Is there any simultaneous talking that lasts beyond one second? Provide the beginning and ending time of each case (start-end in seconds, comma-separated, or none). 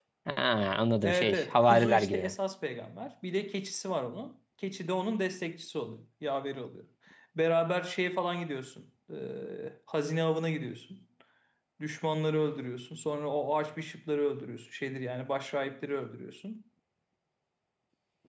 1.0-2.3